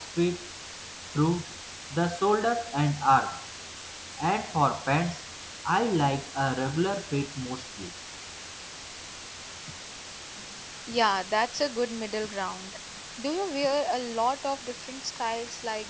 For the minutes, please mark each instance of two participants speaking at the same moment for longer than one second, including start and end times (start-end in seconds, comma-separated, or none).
none